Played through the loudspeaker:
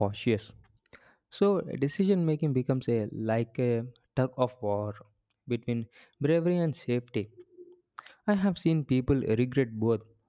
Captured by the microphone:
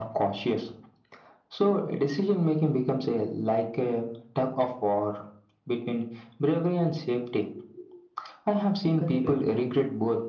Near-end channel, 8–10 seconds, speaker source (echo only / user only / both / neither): both